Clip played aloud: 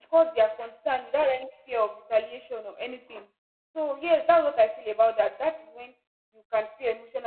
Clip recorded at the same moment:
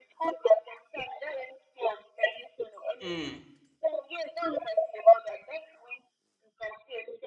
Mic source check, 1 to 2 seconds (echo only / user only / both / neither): echo only